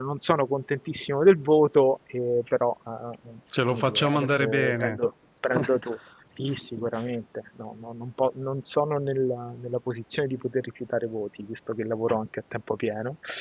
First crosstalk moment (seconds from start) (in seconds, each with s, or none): 3.7 s